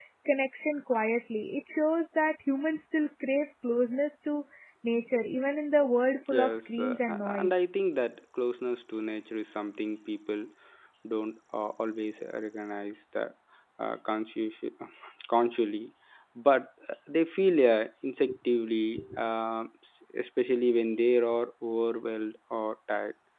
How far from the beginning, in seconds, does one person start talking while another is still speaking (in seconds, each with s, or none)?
6.3 s